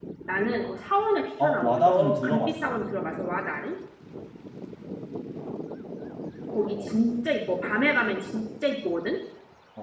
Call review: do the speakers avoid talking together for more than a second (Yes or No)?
No